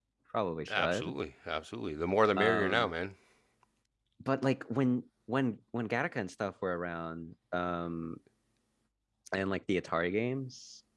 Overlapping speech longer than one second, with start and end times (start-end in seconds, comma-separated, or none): none